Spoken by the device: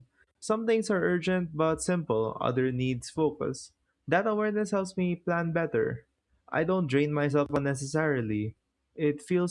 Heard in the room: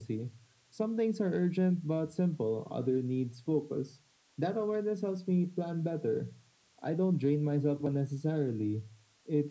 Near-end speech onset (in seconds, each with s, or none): none